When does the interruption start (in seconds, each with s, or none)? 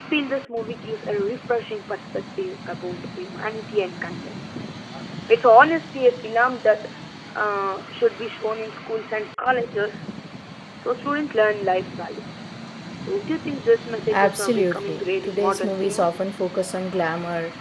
14.0 s